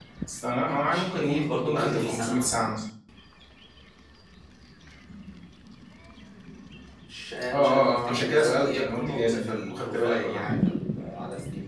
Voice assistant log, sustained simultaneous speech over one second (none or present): present